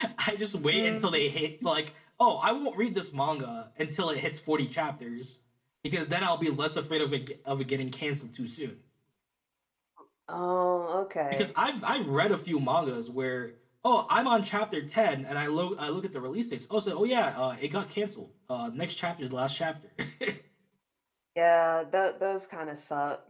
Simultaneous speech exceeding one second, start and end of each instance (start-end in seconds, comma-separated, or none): none